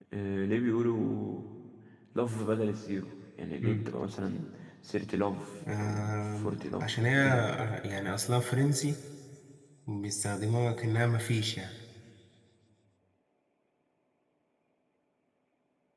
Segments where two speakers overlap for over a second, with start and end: 5.8-7.5

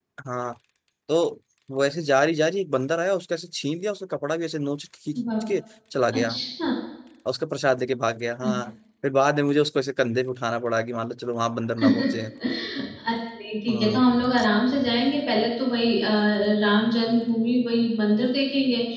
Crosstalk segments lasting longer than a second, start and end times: none

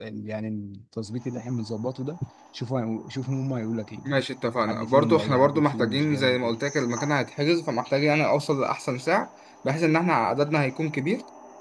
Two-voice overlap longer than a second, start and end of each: 4.7-6.6

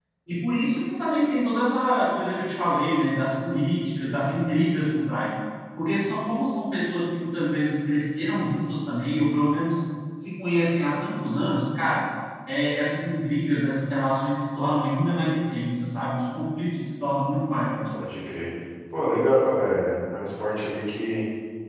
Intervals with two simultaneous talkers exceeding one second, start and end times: none

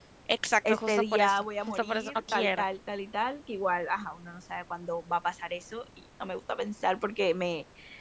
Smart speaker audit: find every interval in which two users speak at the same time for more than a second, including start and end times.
0.7-2.6

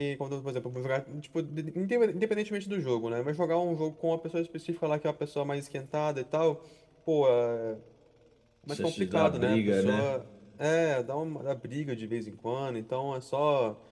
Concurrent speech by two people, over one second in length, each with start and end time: 8.7-10.1

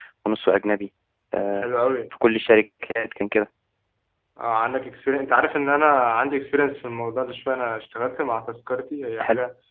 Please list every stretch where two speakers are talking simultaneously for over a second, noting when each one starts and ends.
none

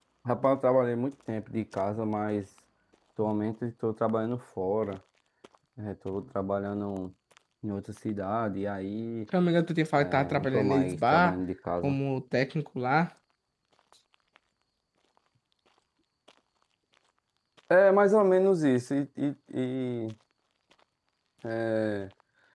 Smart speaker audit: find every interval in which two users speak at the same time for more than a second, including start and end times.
10.0-11.3

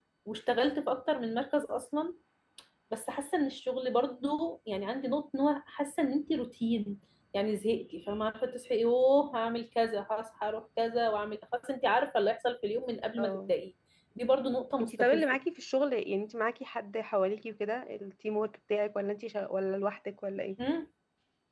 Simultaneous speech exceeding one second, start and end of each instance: none

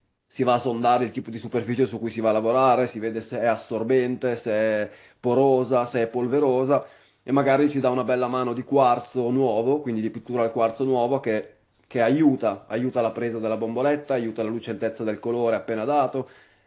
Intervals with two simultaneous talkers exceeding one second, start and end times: none

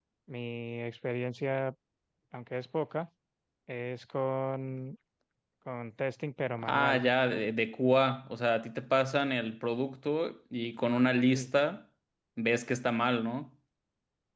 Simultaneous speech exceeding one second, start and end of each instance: none

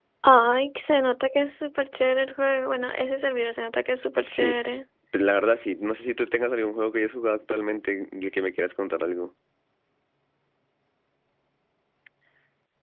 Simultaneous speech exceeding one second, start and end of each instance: none

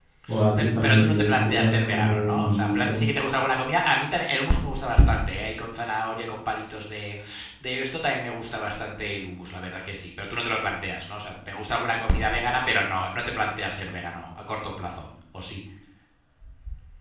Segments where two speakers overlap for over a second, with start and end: 0.5-3.0

